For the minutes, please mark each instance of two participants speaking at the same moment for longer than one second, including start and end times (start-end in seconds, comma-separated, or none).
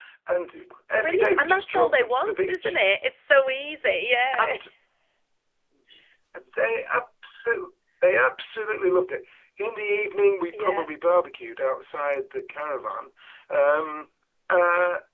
1.0-2.8